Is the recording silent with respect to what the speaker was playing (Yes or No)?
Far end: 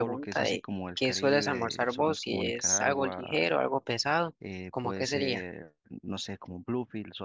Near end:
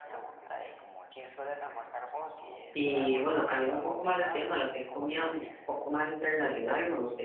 No